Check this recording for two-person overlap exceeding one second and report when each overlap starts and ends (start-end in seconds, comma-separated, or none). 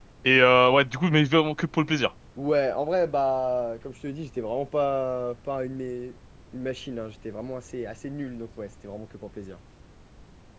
none